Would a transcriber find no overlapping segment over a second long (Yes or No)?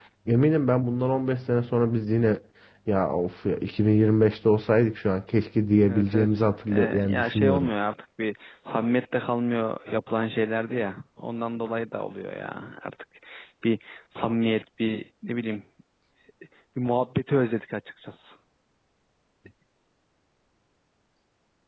No